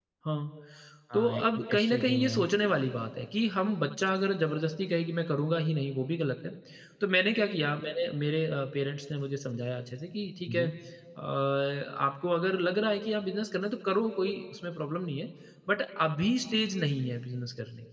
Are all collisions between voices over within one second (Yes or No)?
No